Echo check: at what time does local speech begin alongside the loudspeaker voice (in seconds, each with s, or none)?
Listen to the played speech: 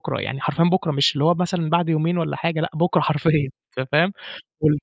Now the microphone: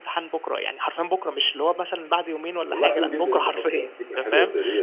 2.7 s